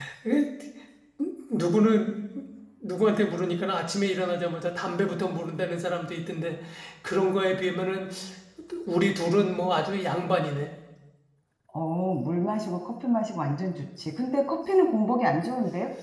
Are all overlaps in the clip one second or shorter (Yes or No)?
Yes